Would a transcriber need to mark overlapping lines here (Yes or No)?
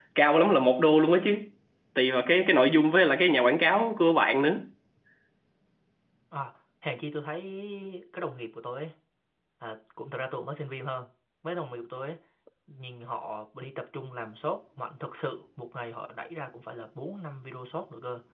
No